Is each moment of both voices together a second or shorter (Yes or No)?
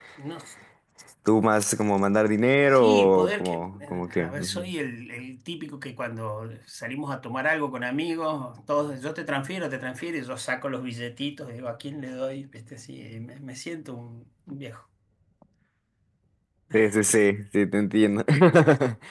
No